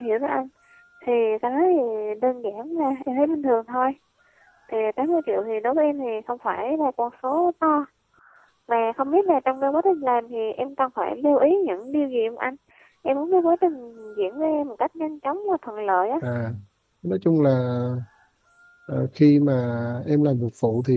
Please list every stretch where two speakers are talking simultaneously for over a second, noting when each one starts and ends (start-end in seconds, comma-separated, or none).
none